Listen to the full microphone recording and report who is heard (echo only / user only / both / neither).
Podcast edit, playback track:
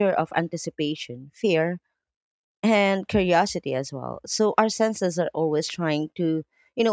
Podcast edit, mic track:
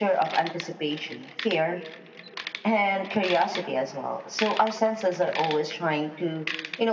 echo only